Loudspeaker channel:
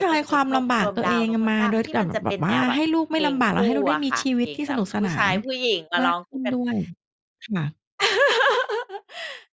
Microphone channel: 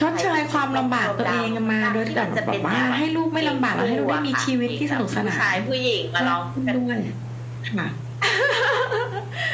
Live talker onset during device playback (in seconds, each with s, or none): none